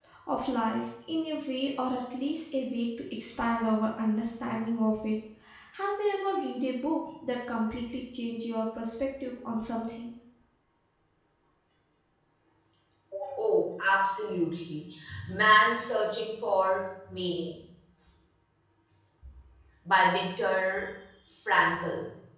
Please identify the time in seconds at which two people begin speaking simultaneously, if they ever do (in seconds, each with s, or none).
none